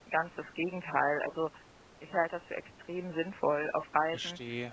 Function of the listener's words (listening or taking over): listening